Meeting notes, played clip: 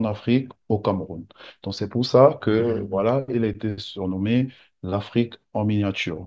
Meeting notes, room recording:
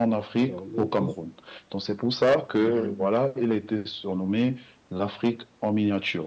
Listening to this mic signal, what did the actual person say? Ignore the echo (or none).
Alors, le, le s-